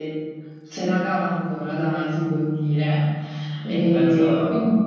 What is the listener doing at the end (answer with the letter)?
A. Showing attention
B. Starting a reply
B